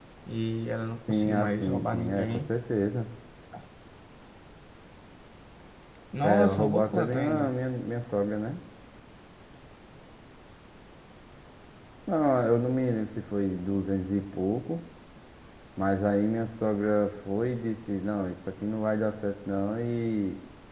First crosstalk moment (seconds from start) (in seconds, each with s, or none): 1.1 s